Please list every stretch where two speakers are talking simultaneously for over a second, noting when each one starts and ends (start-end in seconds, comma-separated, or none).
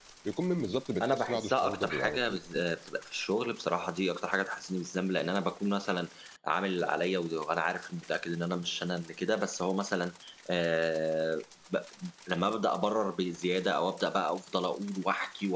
1.0-2.4